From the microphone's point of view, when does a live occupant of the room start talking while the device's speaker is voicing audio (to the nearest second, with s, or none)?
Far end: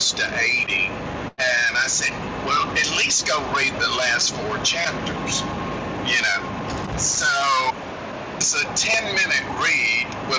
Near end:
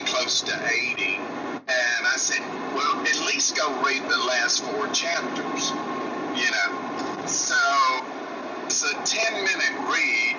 none